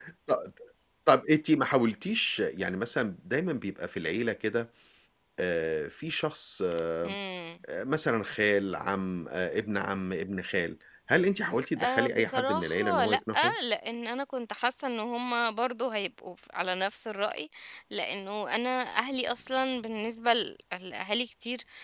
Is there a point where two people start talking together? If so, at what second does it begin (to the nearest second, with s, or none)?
12 s